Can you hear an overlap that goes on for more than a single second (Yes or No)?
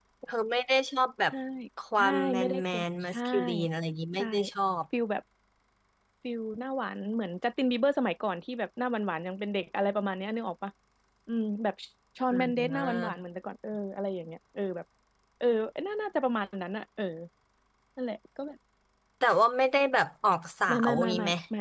Yes